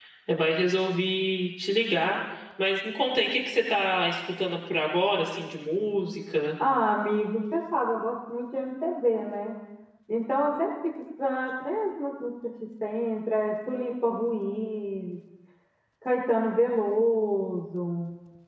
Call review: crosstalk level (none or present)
none